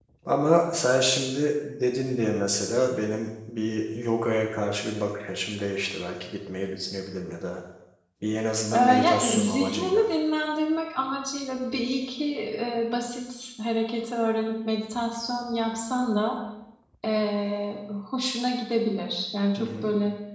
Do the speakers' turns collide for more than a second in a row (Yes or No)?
Yes